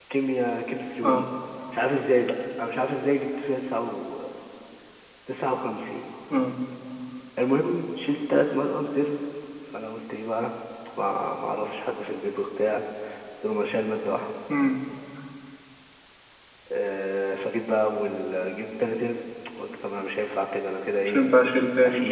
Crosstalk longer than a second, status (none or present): none